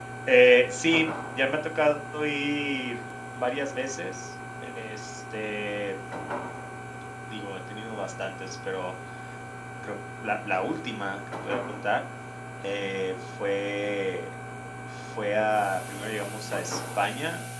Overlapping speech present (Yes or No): No